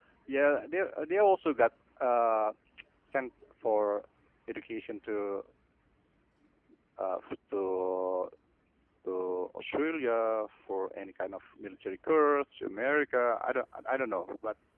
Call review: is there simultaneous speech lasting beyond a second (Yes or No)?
No